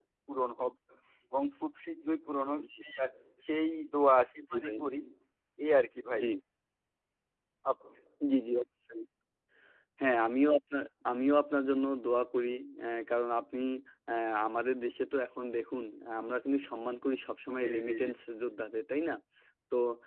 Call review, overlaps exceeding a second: none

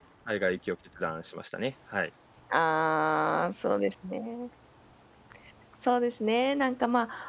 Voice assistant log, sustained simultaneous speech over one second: none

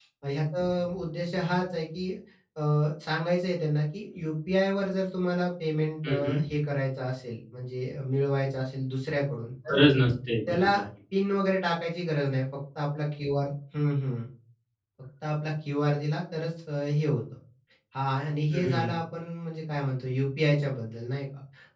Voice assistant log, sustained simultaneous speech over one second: none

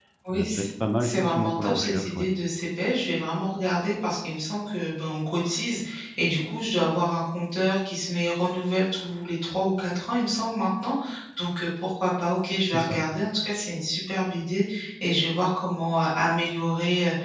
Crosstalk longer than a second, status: present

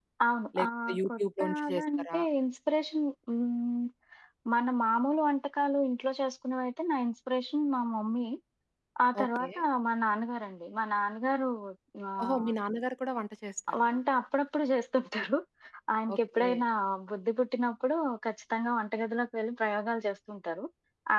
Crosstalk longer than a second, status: present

